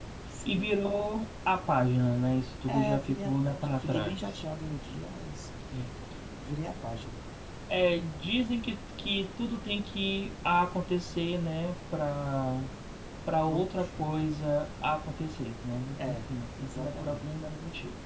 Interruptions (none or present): present